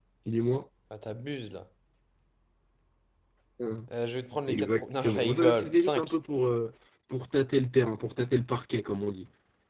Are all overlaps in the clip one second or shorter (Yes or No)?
No